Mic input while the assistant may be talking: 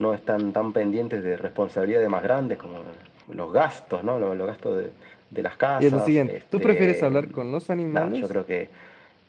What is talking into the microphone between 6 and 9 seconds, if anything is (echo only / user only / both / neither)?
both